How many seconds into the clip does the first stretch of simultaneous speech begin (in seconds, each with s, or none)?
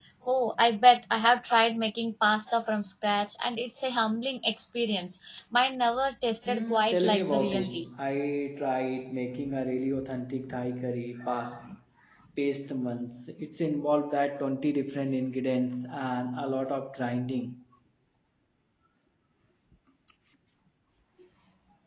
6.5 s